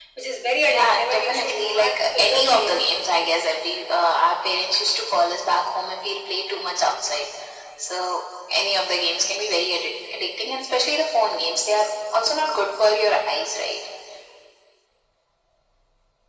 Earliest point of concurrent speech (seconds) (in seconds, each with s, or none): 0.7 s